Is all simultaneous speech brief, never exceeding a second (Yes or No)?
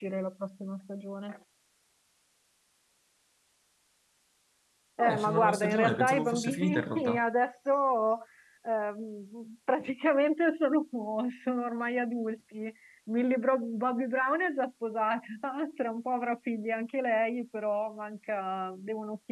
No